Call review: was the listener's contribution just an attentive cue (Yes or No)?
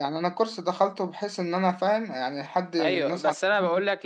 No